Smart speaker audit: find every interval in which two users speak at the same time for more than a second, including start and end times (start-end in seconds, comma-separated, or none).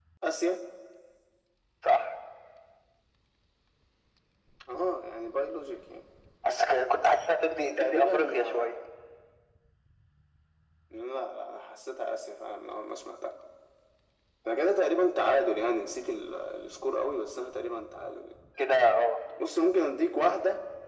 7.5-8.7